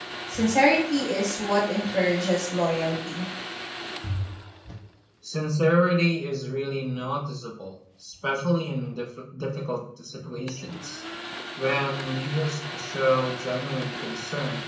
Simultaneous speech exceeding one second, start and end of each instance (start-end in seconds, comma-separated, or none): none